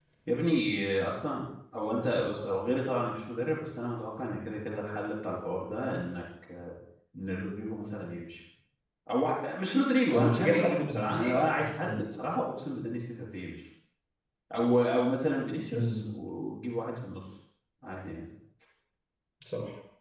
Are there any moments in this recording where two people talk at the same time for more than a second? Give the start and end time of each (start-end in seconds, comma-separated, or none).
10.1-12.0